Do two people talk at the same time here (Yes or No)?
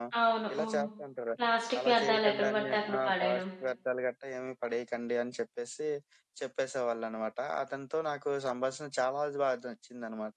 Yes